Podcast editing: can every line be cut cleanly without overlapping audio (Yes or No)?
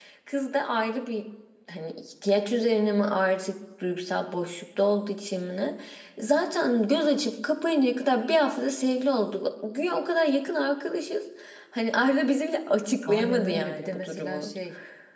No